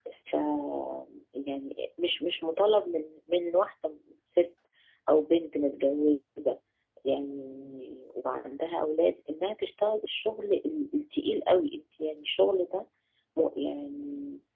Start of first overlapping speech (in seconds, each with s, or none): none